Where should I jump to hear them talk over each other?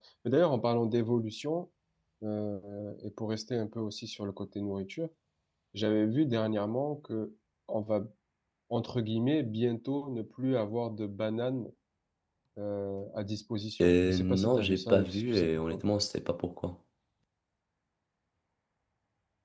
13.8 s

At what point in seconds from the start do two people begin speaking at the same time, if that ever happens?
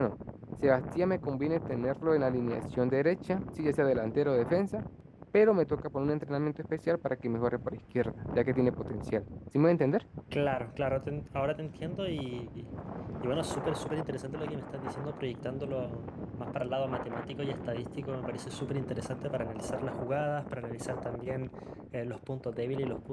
none

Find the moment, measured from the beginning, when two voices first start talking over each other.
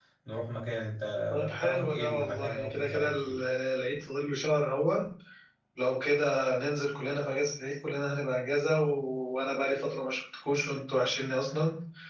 1.4 s

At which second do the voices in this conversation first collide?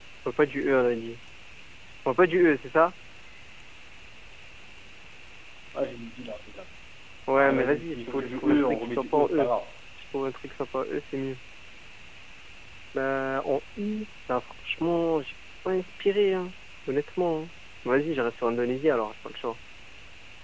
7.3 s

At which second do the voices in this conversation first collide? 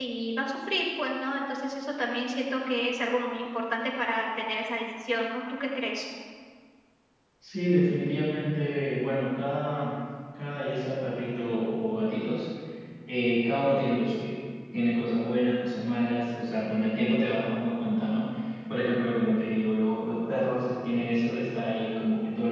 none

